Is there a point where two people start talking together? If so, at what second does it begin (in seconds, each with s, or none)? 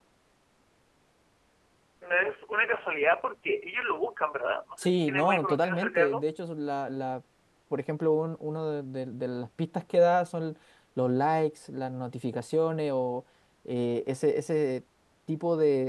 4.8 s